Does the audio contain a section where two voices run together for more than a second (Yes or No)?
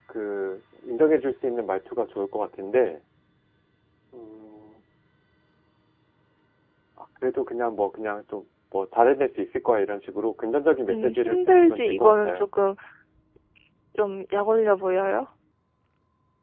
Yes